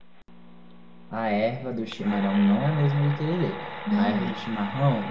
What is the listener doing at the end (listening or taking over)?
listening